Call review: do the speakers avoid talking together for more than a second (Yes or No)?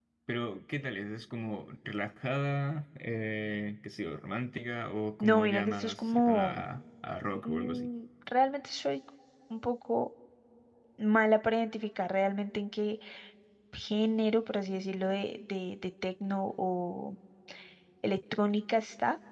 No